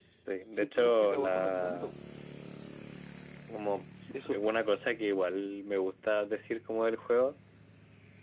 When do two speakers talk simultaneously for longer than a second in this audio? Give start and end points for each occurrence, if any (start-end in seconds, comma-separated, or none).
0.5-1.9